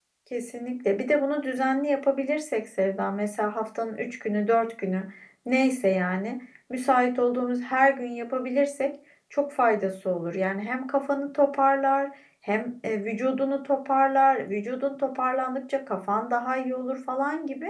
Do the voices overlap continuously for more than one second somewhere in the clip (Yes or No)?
No